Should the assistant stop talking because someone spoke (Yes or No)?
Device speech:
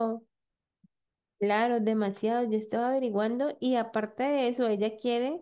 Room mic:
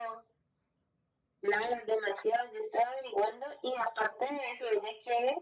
No